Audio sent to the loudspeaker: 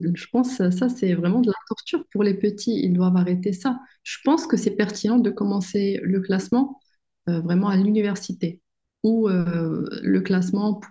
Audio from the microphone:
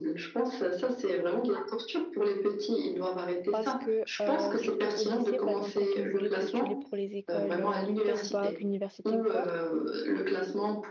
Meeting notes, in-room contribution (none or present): present